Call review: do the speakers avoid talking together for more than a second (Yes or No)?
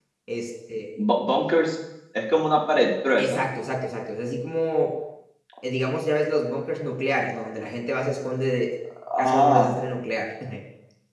Yes